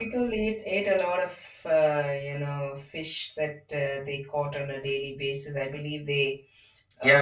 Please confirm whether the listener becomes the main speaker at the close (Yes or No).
Yes